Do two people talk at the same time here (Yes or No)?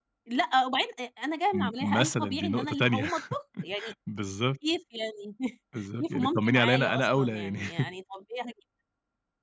Yes